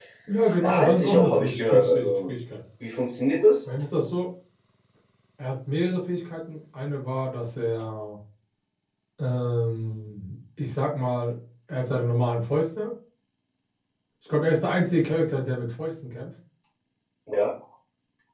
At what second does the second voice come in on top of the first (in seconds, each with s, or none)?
0.6 s